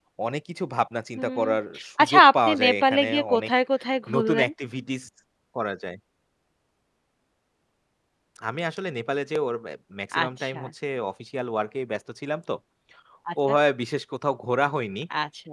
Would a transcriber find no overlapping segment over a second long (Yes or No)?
No